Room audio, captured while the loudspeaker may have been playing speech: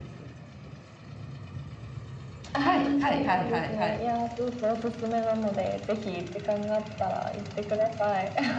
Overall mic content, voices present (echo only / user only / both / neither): both